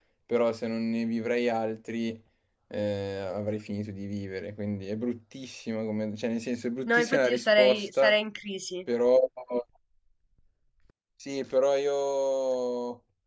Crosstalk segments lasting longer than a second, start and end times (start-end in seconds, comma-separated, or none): 6.9-8.2